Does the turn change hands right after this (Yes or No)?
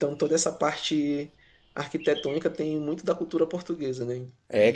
Yes